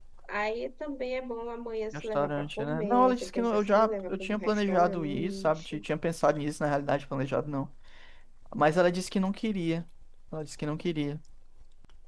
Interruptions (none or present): present